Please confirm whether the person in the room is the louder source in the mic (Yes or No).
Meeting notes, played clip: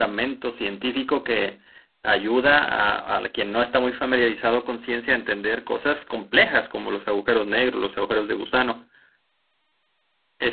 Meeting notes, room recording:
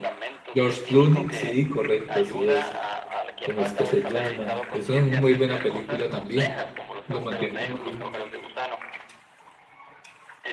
Yes